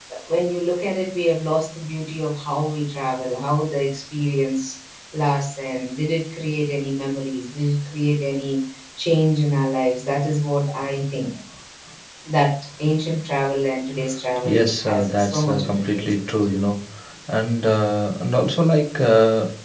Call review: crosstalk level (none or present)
present